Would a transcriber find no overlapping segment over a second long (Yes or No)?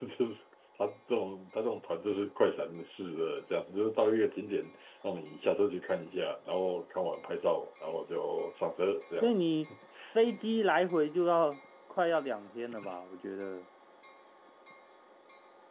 Yes